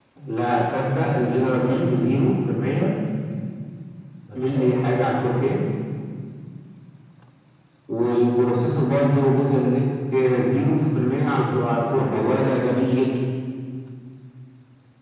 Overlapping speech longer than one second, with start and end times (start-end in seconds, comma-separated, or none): none